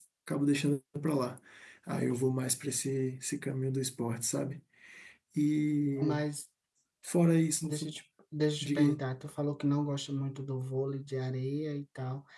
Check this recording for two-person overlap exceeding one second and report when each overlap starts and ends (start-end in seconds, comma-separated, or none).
none